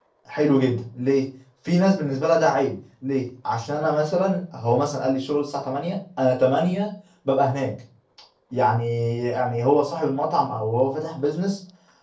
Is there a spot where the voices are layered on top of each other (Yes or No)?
No